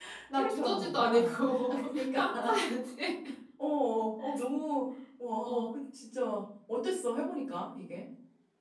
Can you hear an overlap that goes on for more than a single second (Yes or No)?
Yes